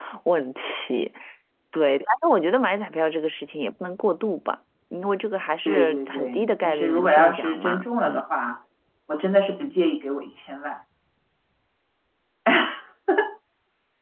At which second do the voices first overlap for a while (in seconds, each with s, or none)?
5.7 s